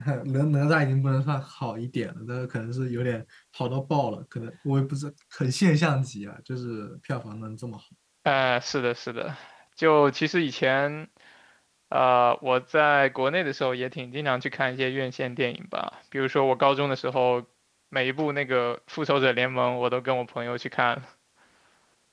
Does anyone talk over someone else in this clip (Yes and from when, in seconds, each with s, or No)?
No